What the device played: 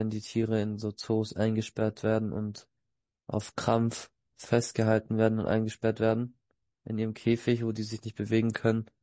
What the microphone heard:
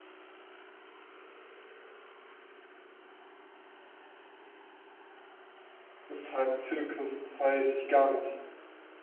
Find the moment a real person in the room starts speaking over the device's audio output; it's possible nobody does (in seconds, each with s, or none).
6.1 s